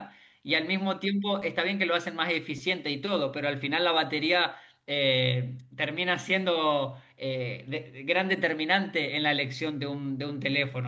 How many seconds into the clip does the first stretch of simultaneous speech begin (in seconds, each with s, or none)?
none